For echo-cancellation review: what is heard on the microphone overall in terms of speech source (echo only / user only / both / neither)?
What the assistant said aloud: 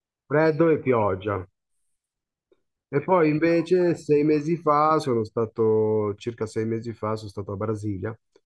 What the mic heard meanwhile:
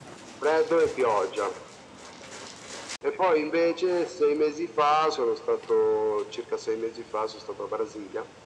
echo only